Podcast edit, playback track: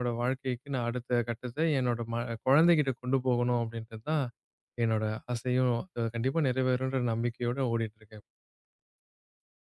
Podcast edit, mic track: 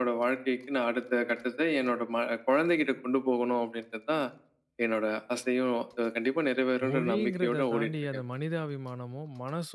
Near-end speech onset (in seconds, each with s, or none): 6.9 s